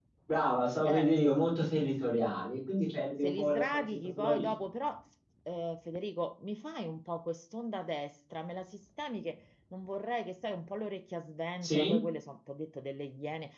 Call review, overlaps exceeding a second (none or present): present